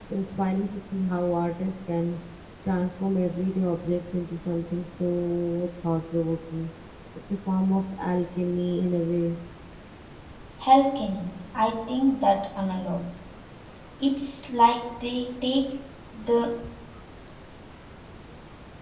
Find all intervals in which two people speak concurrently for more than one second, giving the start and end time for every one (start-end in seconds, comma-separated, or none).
none